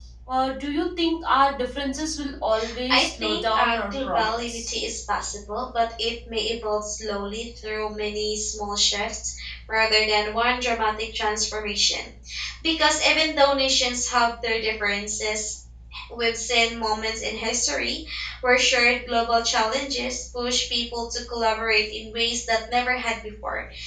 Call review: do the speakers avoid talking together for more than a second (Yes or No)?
No